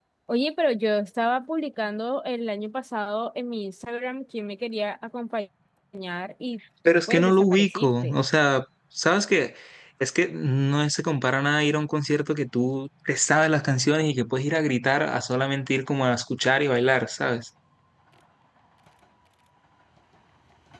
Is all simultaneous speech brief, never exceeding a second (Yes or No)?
No